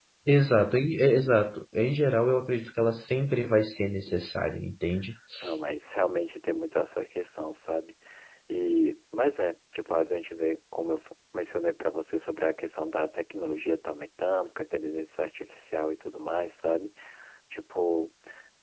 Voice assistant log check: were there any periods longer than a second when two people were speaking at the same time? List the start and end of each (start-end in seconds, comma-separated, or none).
none